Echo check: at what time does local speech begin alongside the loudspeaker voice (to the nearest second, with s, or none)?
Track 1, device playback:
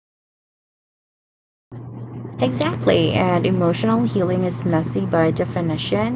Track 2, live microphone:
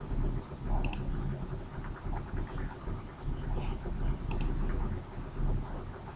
none